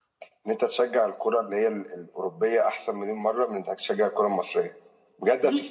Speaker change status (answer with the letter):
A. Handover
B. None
A